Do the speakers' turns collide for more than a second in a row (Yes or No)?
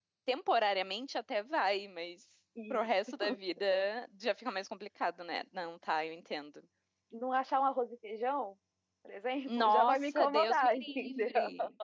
Yes